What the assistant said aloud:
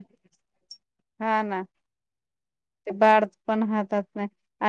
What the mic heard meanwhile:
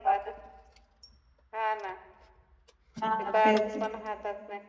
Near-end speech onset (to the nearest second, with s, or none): 3 s